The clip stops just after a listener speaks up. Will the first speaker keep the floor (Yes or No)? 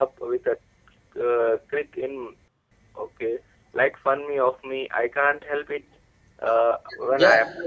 No